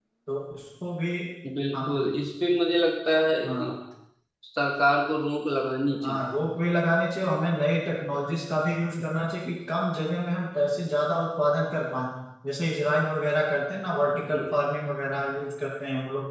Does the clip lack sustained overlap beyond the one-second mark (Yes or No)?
Yes